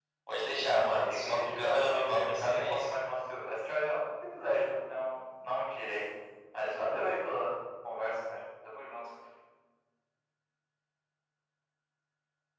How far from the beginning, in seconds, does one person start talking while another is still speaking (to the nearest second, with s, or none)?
1 s